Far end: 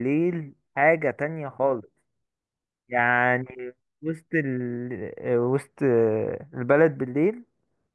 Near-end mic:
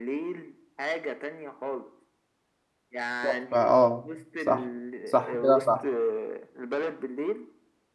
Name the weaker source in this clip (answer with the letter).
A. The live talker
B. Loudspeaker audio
B